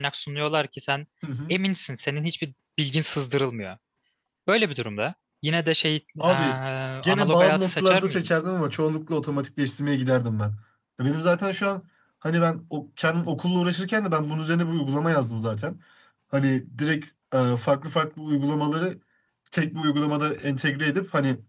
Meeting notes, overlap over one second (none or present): present